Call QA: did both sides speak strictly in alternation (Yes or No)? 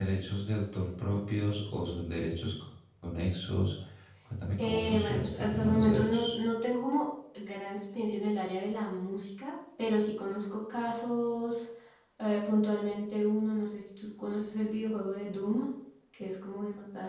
No